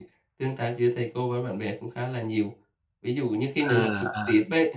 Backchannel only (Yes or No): Yes